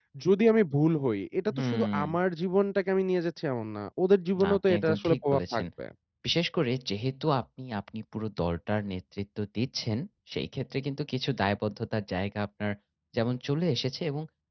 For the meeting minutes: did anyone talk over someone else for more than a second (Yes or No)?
Yes